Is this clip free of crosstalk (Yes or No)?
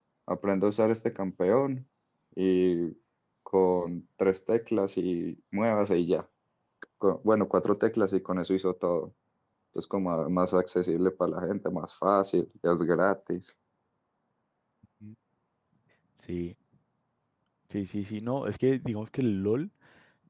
Yes